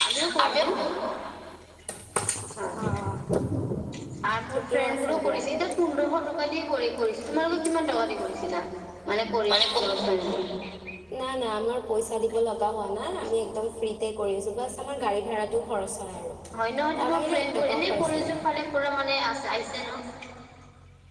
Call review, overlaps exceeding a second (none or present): present